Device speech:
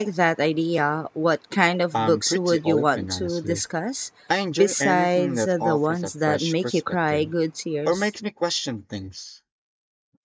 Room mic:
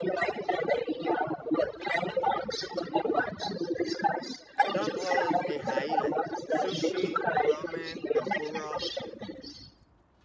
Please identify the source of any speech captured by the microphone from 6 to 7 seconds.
both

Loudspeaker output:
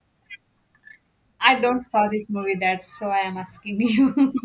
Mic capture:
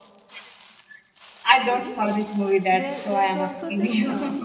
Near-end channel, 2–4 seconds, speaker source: both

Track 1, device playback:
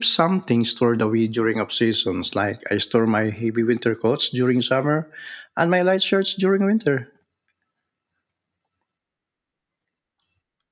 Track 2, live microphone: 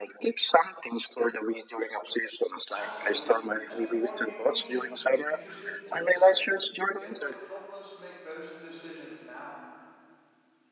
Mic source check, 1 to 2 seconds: echo only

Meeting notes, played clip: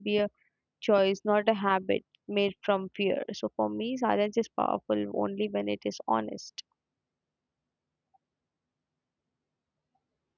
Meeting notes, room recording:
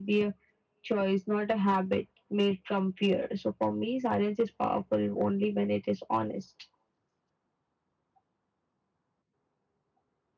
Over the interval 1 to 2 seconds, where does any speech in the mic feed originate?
echo only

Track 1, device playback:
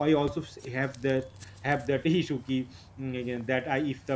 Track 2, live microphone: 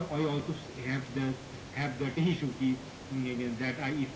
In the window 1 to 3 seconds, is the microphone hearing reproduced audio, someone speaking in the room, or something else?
echo only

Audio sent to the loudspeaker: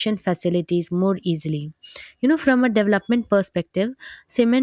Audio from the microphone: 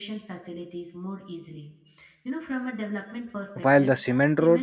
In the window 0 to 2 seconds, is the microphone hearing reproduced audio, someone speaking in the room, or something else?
echo only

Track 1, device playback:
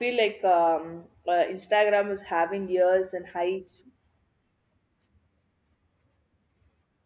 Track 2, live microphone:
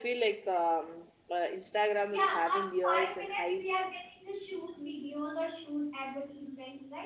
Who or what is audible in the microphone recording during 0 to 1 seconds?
echo only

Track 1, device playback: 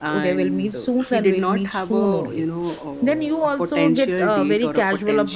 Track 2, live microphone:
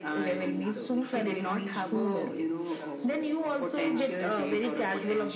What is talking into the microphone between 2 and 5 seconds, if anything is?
both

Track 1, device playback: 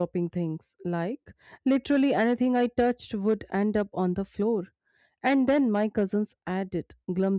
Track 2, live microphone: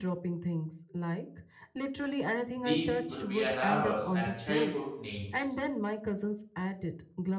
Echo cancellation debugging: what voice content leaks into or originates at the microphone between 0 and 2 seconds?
echo only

